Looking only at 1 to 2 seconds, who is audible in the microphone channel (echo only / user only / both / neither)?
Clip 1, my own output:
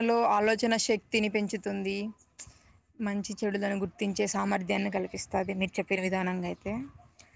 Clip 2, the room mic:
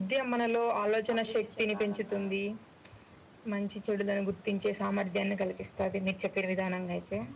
both